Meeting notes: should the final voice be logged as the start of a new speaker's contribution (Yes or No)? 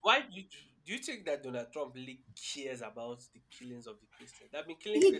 Yes